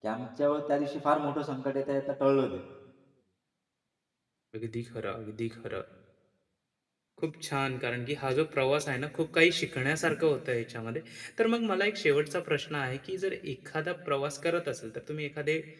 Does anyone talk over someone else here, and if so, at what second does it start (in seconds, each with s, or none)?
none